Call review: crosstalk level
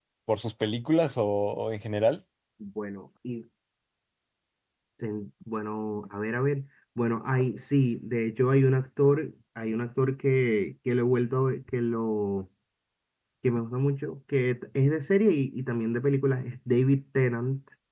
none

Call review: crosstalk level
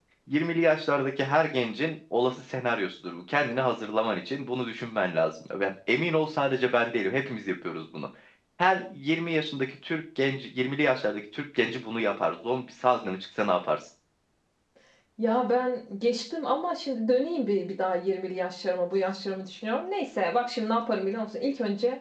none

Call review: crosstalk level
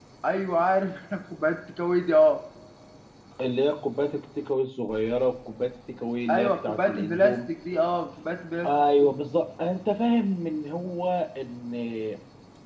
present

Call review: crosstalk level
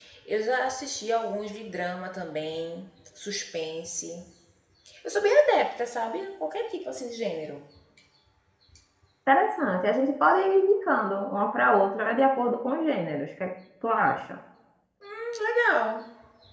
none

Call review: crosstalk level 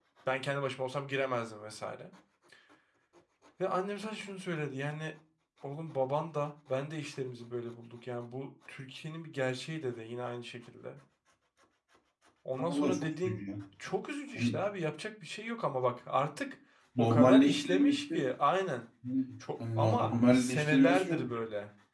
present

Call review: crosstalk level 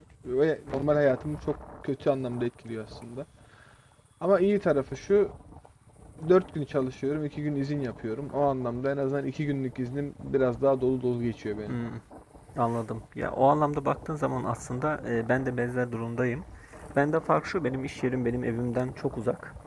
none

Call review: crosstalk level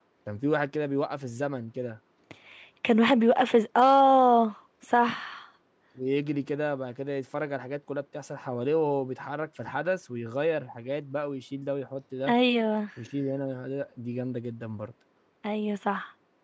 none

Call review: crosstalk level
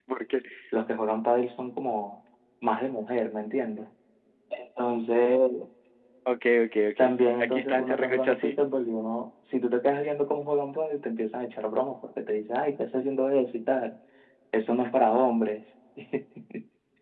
present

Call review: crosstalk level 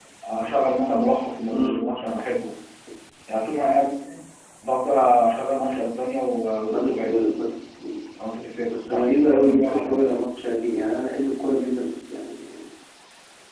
present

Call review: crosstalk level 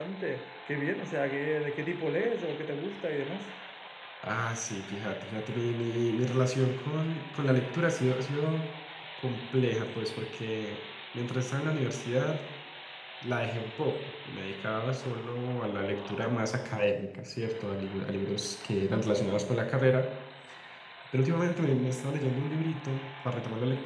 none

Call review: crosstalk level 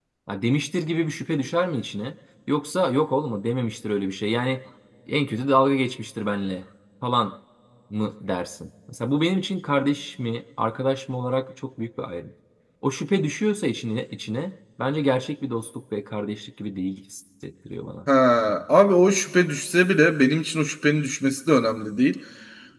none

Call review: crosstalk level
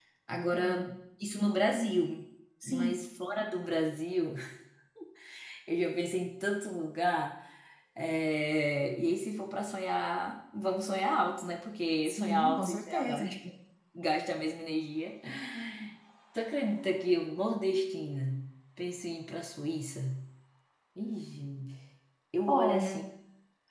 present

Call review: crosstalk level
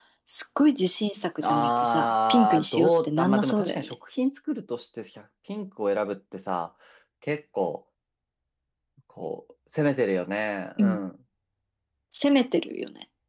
present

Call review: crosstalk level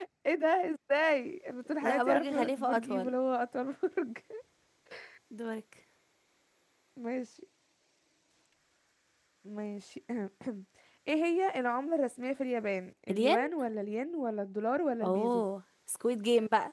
present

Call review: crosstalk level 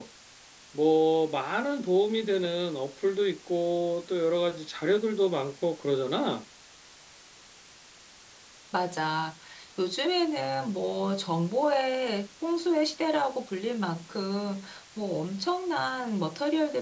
none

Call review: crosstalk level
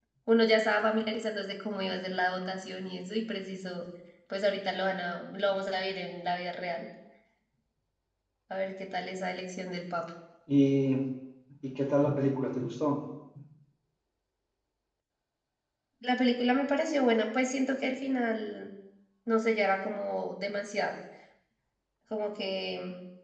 none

